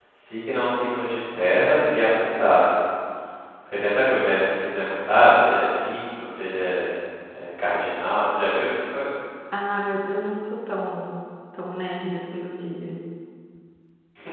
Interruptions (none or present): none